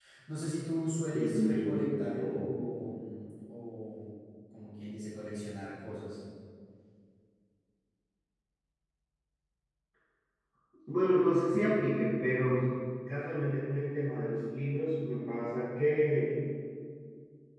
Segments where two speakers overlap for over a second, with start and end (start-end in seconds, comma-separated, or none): 1.1-2.4